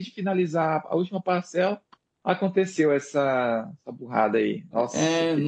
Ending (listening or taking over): taking over